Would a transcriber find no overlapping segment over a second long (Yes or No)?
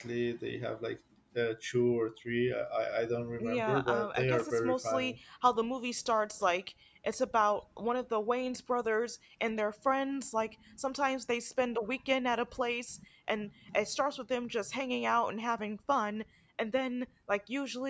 No